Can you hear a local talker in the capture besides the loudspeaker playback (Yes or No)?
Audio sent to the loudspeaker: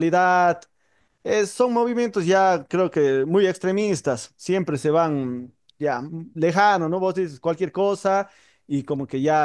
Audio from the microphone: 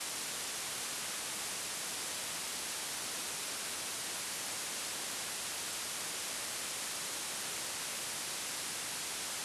No